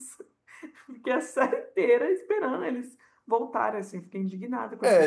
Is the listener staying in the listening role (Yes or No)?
No